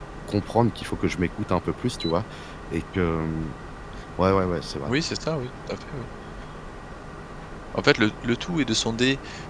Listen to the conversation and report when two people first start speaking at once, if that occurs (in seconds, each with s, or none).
none